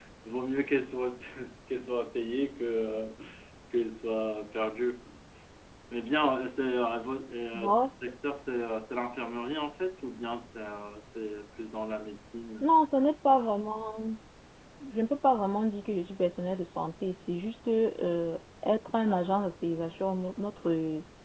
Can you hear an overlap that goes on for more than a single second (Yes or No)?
No